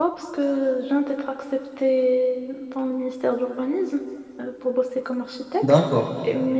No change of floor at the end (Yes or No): Yes